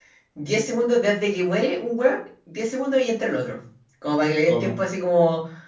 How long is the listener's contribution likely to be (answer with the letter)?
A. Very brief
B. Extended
A